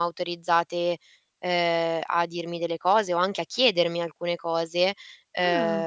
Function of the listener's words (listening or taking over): listening